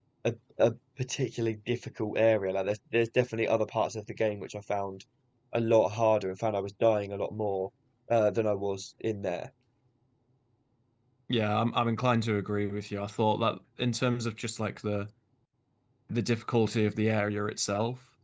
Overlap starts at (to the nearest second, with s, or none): none